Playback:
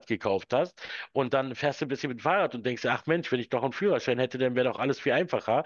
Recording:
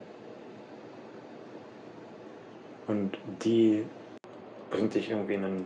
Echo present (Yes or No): No